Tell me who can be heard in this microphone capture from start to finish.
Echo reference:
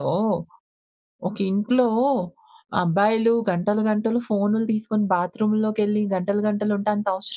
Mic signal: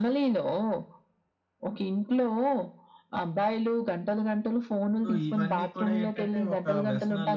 both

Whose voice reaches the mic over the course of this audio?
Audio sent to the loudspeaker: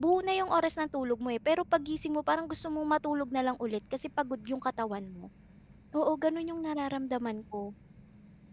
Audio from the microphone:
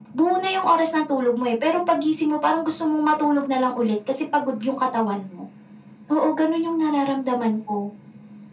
echo only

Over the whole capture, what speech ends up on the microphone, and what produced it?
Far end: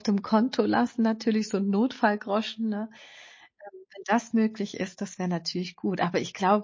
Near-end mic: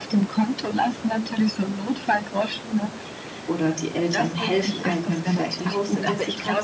both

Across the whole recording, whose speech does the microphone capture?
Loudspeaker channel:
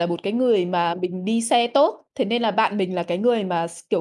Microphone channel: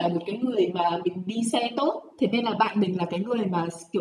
echo only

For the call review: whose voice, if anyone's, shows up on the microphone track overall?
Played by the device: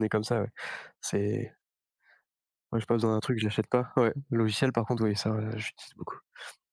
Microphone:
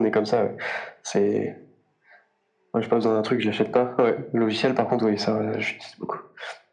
echo only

